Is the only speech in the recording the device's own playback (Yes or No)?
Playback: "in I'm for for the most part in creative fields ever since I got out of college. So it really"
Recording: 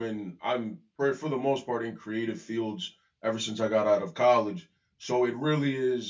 Yes